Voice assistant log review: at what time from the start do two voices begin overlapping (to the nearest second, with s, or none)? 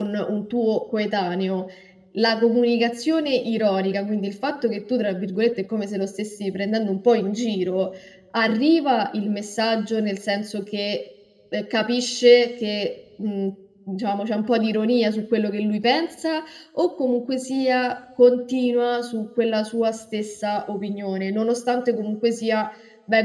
none